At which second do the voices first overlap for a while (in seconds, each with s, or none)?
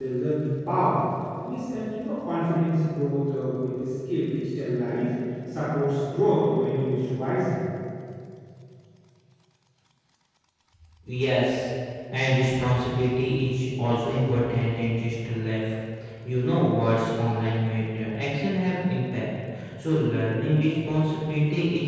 none